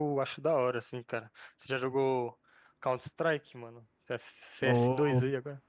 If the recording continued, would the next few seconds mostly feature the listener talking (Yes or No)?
Yes